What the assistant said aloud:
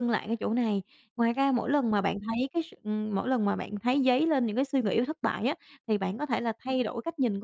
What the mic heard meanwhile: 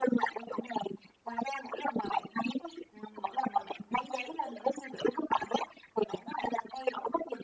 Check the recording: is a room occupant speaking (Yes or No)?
No